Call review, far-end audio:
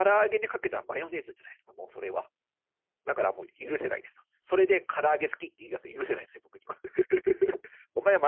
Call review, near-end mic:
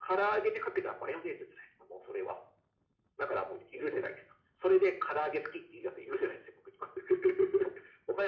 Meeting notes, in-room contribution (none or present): none